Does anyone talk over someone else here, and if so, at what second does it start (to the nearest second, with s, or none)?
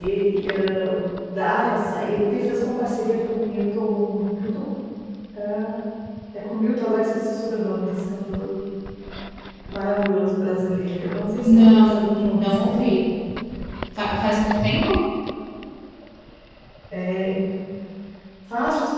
11 s